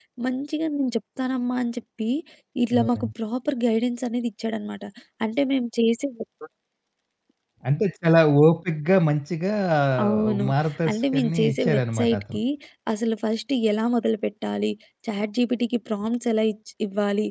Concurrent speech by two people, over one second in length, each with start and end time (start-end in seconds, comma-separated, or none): 10.9-12.4